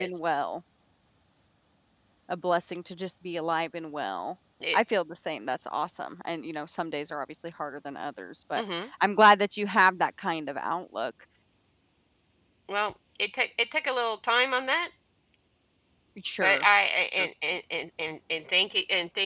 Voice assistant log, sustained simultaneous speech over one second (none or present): none